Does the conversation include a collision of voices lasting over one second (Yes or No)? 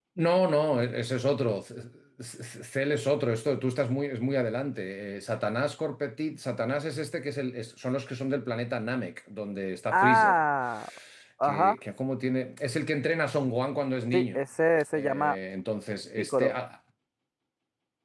No